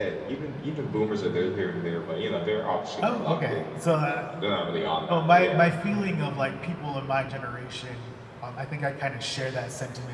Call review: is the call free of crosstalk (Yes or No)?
No